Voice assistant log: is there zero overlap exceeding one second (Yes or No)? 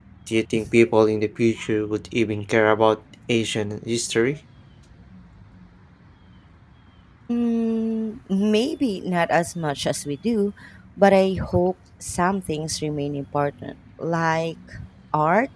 Yes